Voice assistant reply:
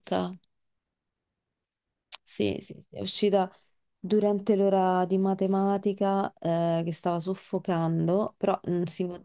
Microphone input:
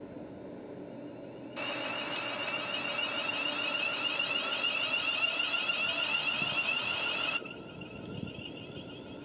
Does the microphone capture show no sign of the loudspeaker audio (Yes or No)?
Yes